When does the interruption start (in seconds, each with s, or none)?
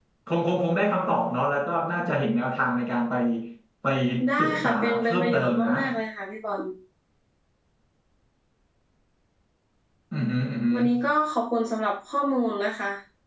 4.4 s